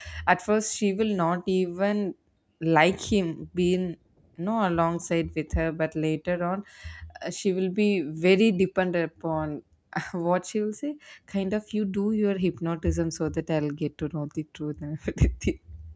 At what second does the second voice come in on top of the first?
none

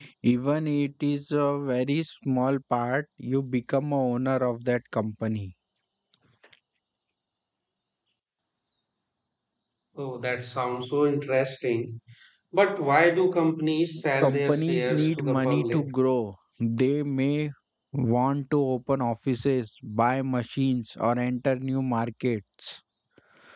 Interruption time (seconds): 14.2 s

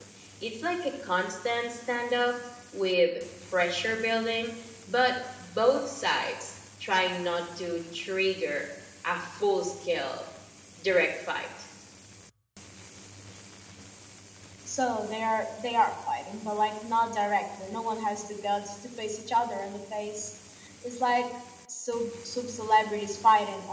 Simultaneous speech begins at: none

